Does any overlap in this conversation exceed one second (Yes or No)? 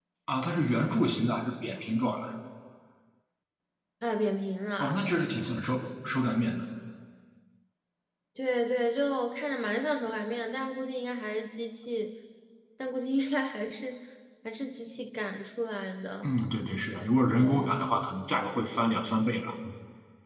No